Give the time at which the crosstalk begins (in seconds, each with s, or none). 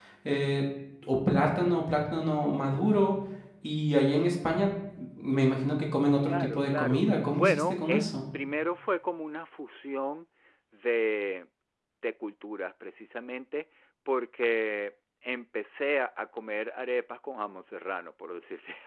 6.2 s